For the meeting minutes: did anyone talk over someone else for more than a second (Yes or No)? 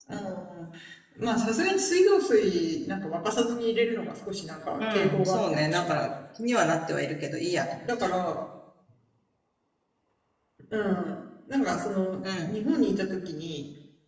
Yes